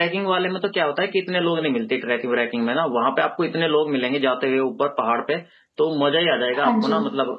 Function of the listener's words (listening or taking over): listening